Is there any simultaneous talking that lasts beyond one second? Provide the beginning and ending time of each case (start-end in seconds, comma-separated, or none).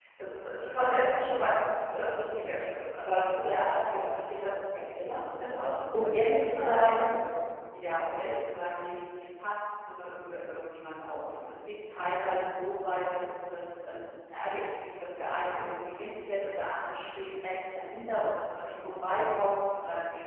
5.9-7.2